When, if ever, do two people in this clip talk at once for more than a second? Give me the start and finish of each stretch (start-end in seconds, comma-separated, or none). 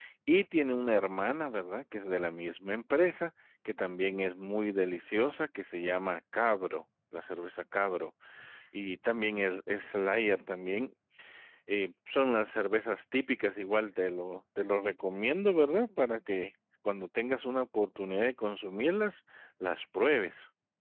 none